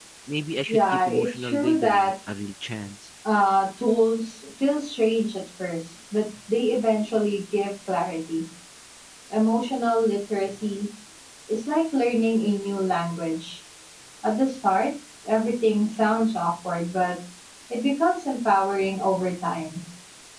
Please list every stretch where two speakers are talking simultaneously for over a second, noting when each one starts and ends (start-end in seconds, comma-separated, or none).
0.7-2.1